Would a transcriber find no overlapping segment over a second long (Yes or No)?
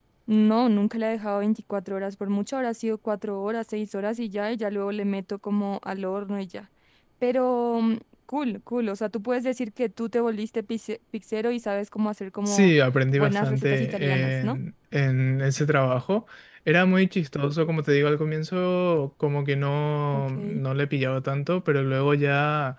No